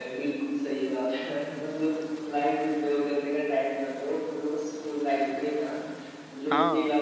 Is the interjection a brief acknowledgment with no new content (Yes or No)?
Yes